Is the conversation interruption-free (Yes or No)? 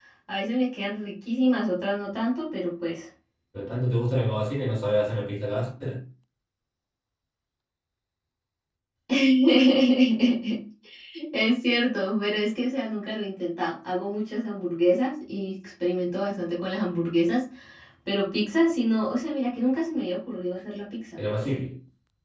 Yes